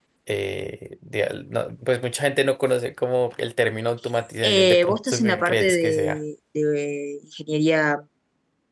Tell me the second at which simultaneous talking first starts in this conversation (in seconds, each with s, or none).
4.4 s